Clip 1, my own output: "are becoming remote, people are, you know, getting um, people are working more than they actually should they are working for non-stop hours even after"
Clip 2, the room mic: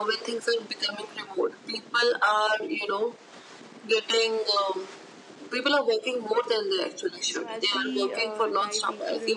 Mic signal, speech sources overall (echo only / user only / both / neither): both